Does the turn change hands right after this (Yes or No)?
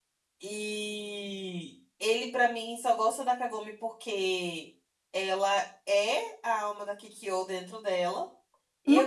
Yes